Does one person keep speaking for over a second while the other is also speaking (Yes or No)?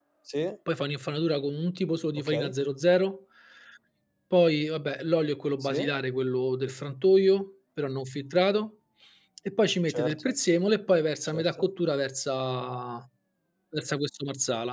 No